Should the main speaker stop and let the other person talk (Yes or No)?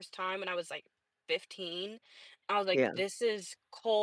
No